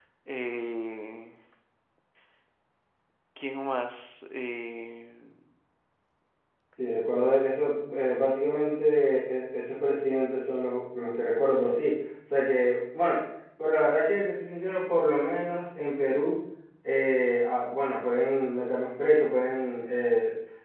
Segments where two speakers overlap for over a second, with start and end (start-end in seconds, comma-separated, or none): none